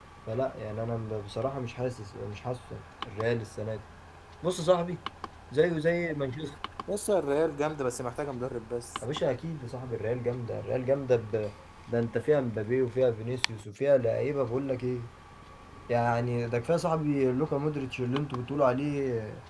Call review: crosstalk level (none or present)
none